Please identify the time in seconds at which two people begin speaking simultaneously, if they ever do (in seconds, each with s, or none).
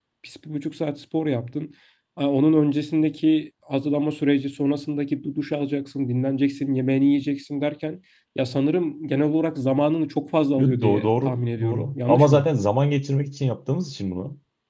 10.6 s